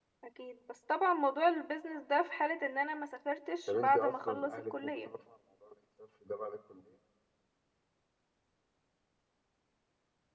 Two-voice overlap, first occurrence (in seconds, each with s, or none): 3.7 s